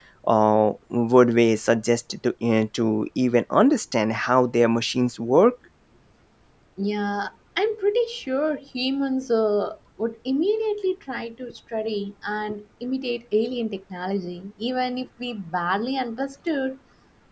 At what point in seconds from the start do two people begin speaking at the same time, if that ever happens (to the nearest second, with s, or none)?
none